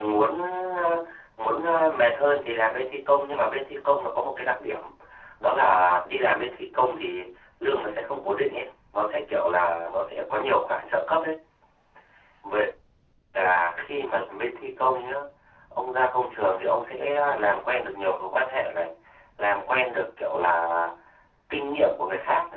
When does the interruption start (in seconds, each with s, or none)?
none